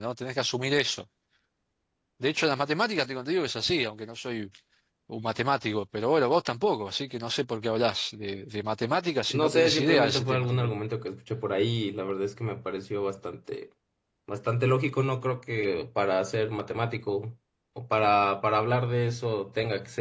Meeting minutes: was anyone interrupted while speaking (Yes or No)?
Yes